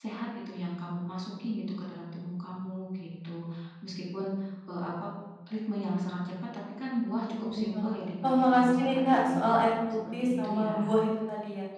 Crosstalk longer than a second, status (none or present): present